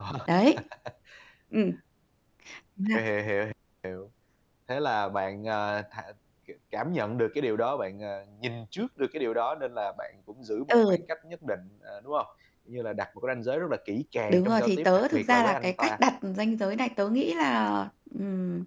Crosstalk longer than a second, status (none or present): present